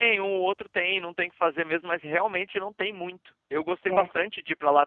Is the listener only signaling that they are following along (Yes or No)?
Yes